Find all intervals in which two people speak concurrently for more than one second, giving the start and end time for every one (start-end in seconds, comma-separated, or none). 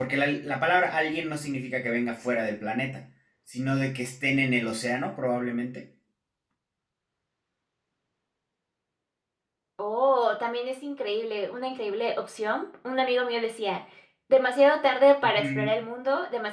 none